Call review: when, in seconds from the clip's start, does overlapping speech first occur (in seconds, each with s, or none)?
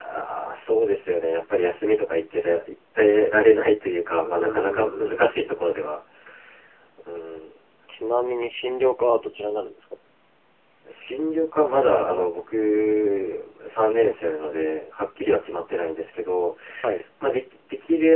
4.2 s